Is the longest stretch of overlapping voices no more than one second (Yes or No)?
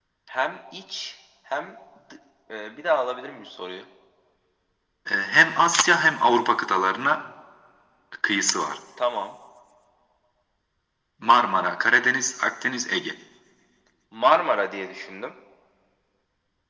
Yes